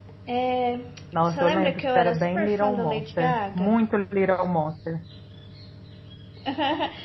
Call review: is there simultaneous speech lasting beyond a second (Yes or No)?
Yes